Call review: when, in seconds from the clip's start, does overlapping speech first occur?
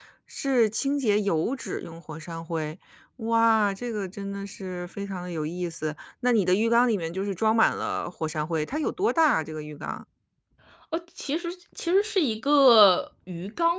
none

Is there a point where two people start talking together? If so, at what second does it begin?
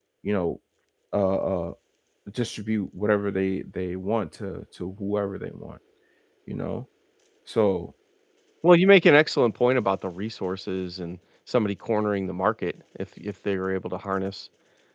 none

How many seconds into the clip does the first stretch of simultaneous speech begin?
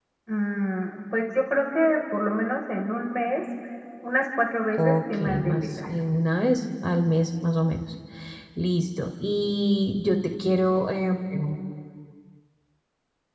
5 s

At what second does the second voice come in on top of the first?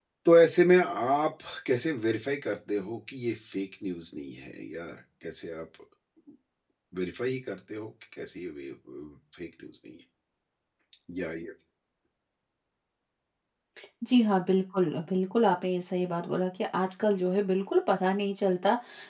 none

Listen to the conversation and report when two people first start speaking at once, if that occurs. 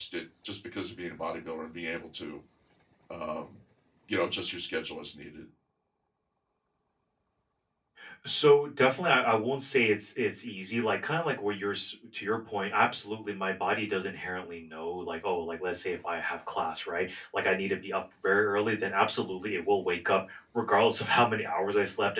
none

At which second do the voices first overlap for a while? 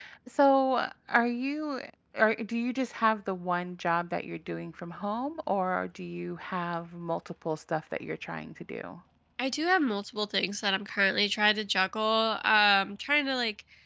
none

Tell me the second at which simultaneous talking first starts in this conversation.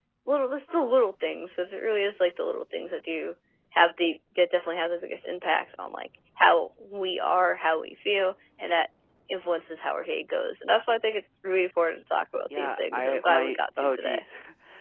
13 s

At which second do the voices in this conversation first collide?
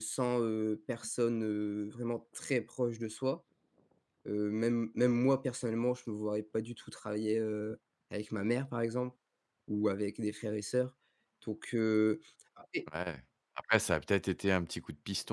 none

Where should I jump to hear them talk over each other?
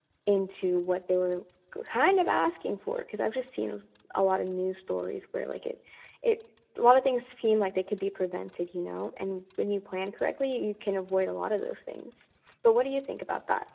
none

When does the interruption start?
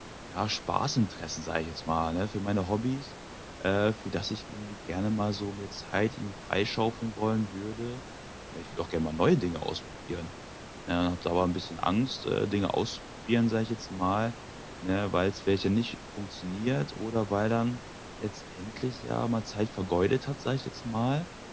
none

